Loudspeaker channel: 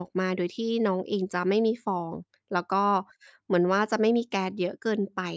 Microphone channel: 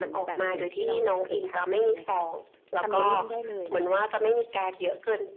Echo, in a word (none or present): present